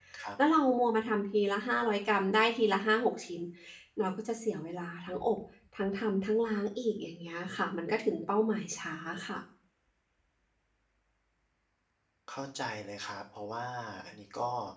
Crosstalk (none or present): none